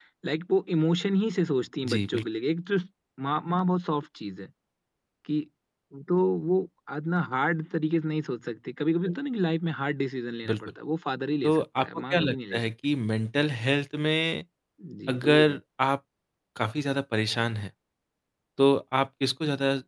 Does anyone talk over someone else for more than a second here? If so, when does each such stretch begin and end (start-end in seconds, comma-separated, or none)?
11.4-12.7